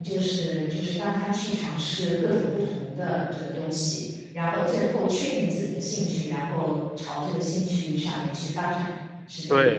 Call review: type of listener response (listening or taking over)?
taking over